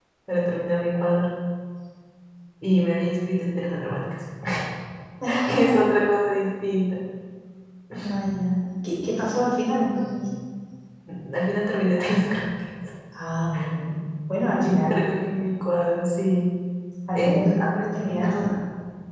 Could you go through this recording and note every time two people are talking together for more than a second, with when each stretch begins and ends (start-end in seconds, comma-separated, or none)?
17.2-18.6